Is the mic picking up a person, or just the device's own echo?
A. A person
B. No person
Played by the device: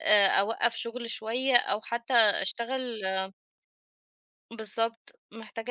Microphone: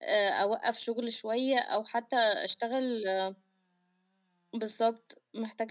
B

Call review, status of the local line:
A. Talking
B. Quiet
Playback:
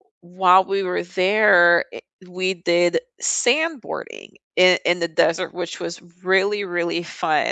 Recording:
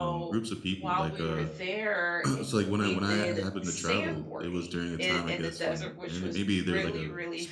A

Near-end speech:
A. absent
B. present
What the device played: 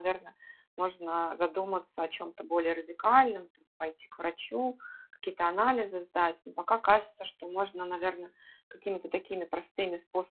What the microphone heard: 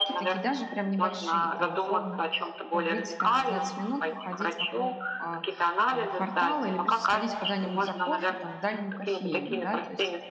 B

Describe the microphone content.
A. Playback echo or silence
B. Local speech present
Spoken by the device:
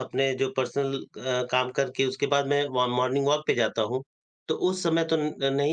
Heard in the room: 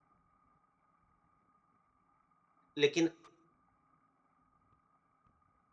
B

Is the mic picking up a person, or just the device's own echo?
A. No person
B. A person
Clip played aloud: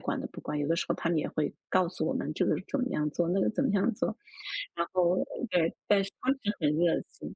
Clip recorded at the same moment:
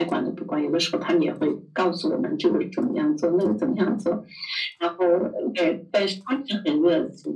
A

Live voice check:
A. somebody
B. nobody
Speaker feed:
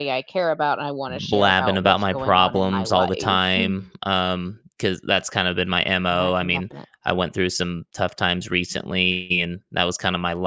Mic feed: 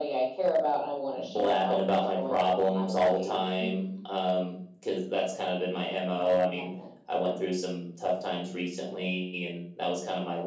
B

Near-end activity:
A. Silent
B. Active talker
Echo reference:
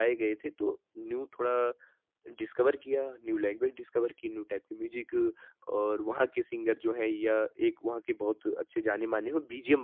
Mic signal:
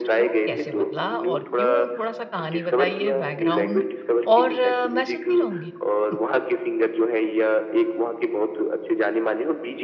B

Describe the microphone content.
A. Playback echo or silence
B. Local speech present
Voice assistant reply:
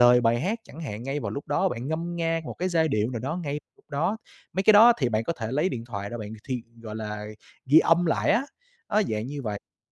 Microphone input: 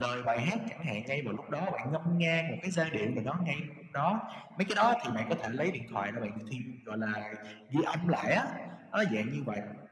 A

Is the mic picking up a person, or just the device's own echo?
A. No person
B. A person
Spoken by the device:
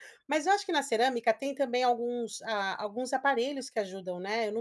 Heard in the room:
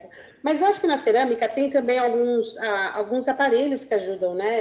A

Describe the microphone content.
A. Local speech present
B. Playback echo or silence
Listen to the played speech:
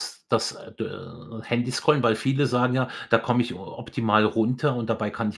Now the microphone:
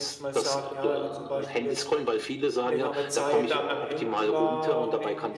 A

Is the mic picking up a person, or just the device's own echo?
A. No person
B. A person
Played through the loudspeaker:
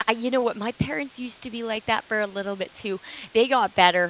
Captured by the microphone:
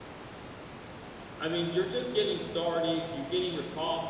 B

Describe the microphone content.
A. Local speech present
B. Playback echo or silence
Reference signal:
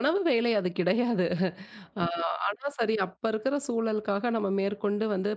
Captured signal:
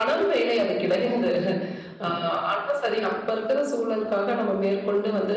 B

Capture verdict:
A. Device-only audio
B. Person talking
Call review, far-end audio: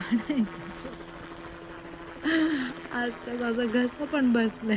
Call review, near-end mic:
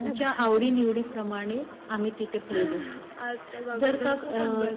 B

